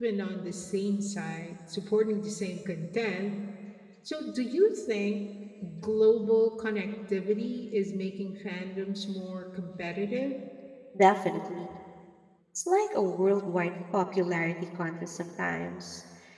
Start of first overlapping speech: none

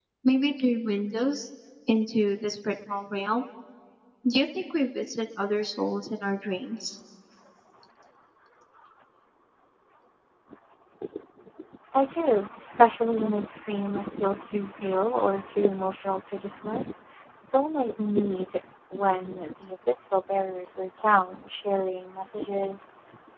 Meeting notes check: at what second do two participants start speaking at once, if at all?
none

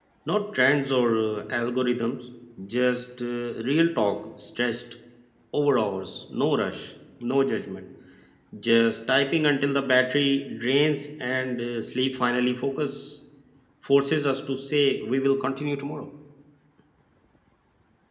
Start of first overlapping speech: none

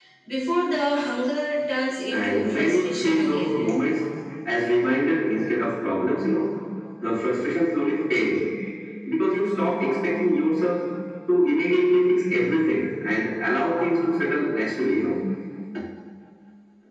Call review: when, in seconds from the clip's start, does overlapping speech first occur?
2.1 s

